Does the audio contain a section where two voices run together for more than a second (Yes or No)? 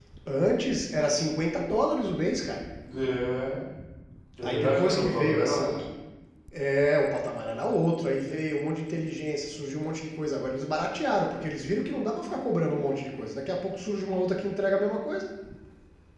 Yes